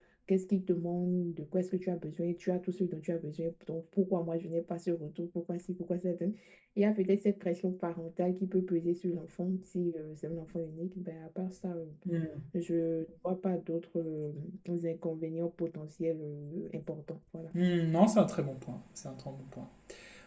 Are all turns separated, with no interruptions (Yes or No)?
Yes